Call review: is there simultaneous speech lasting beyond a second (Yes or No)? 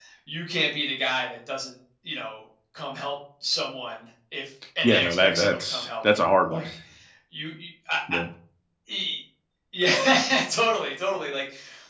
Yes